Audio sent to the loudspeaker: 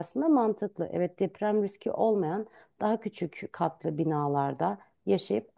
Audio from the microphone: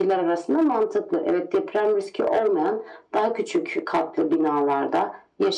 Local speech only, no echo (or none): none